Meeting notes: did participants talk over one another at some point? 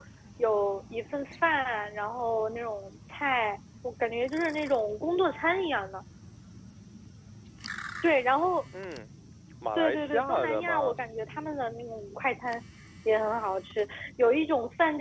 Yes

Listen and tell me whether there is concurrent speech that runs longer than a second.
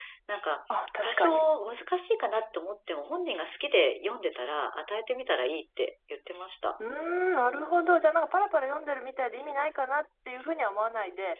No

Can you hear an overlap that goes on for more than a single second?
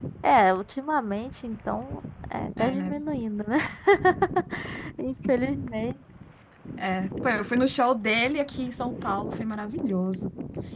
No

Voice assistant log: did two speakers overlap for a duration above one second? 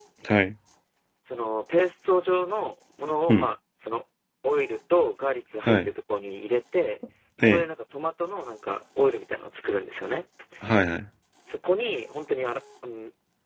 No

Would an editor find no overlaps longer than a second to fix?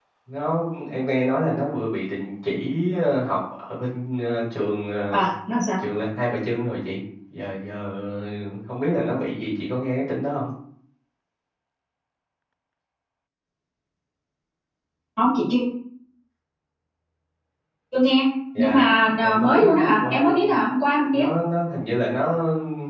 No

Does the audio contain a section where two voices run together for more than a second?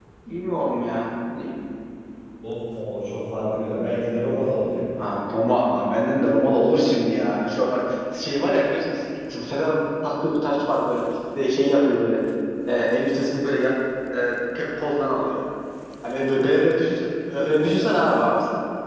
No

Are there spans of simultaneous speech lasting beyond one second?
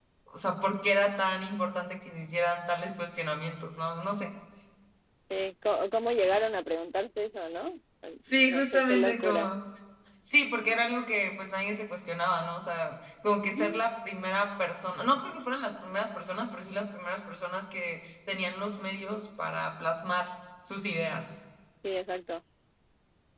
Yes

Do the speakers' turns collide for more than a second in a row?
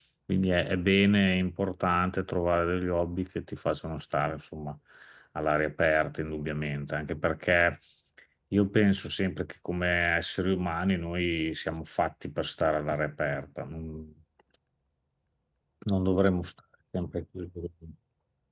No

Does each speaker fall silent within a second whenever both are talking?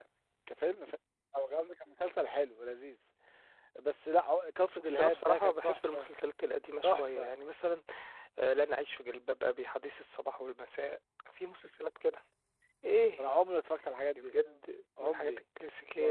No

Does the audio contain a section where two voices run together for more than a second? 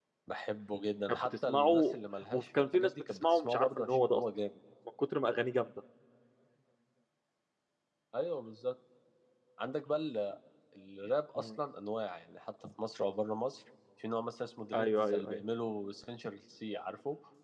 Yes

